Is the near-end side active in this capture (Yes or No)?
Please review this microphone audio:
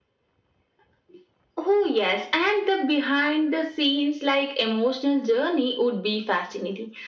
No